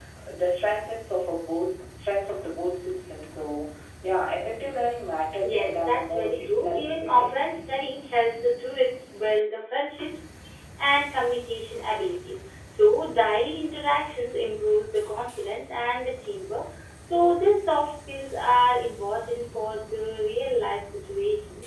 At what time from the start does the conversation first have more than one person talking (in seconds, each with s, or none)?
5.4 s